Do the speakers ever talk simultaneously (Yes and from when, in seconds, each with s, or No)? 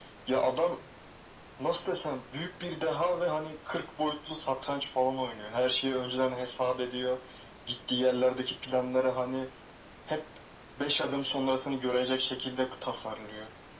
No